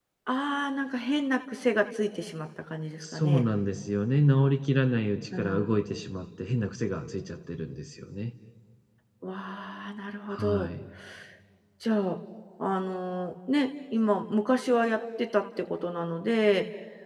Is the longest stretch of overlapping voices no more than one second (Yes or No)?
Yes